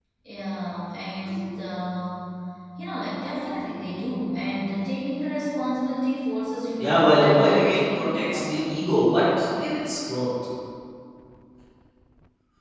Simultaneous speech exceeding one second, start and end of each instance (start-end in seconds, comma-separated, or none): 6.8-8.7